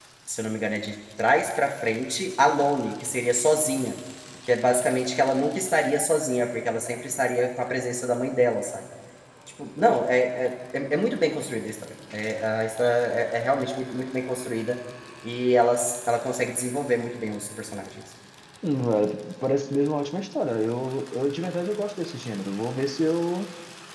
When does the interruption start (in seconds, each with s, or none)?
none